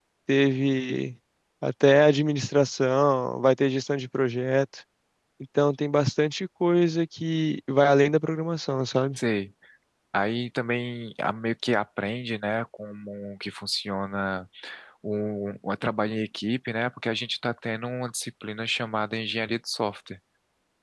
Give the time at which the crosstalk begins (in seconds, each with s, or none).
none